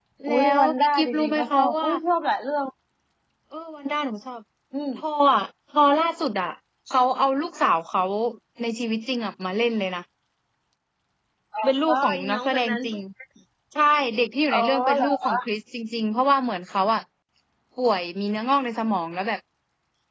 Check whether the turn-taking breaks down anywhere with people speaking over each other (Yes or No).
Yes